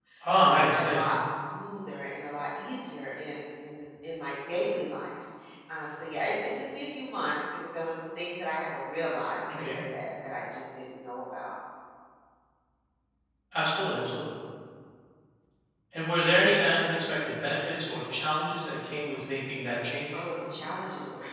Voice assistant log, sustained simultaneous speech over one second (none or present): none